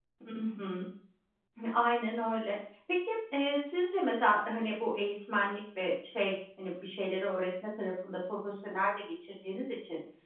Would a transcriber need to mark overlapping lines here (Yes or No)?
No